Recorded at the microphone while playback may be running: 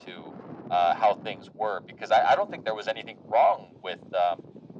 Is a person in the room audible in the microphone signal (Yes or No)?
No